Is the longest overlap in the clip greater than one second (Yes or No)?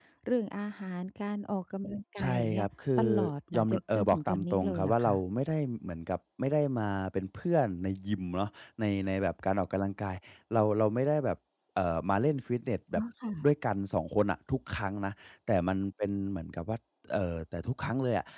Yes